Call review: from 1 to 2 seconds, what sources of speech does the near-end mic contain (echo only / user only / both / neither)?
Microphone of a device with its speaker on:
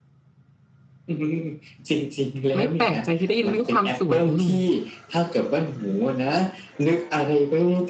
echo only